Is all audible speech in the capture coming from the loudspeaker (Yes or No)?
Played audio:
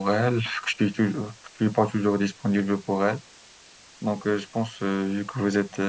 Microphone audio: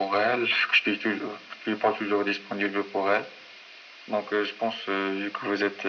Yes